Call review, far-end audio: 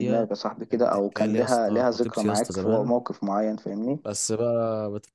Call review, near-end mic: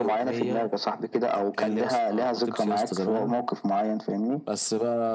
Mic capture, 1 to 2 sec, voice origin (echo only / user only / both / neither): echo only